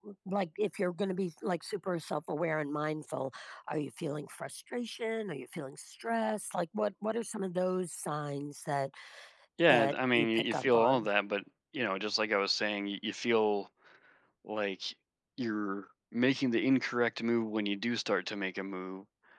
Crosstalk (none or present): present